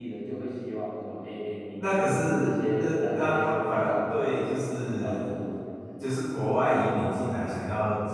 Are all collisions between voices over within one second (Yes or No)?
No